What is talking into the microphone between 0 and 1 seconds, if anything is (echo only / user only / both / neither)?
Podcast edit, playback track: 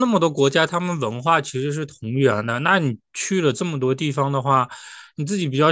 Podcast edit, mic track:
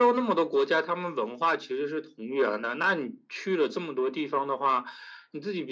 echo only